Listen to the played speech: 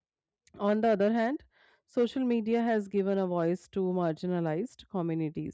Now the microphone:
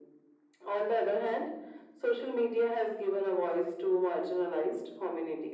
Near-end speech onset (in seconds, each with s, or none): none